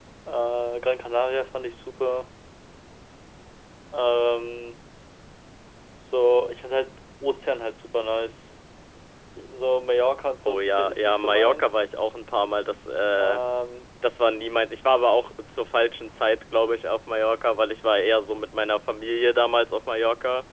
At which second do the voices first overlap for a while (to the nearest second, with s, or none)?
10 s